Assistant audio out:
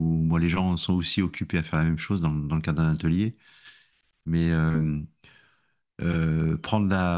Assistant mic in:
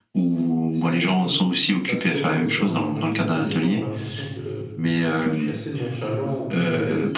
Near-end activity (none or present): present